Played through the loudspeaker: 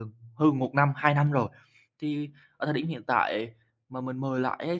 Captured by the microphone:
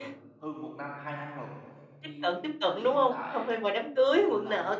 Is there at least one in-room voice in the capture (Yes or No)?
Yes